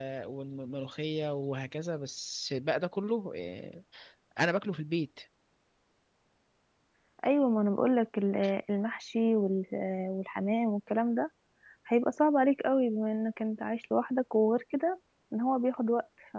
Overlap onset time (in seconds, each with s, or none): none